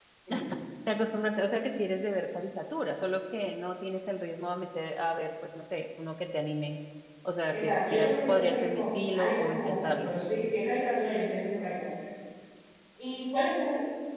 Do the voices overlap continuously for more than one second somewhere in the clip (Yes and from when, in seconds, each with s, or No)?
Yes, from 7.5 s